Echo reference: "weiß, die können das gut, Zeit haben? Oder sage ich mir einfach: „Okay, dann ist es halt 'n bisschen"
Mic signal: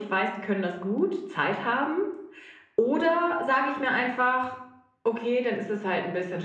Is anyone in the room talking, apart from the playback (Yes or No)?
No